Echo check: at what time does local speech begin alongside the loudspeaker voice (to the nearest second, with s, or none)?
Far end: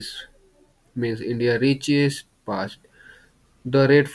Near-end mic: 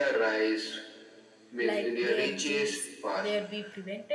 2 s